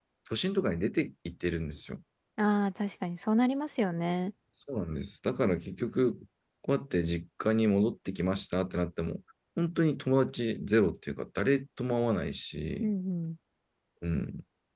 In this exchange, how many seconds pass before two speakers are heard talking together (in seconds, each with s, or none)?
none